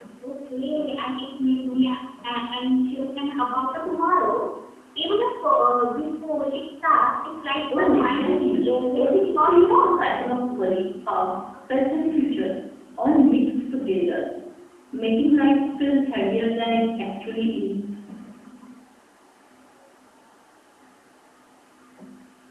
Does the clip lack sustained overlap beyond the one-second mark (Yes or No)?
No